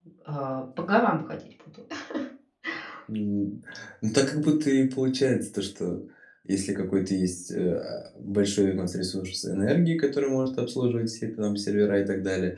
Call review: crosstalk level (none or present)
none